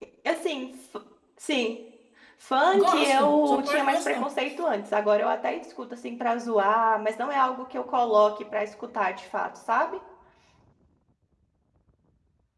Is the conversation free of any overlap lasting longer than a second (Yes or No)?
No